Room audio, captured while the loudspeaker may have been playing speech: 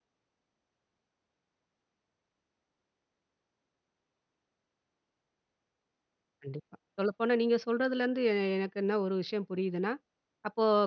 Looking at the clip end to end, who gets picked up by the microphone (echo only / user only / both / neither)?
user only